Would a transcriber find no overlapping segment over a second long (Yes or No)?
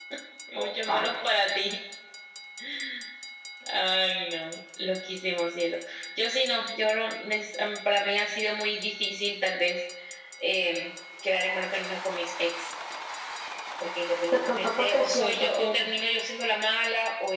No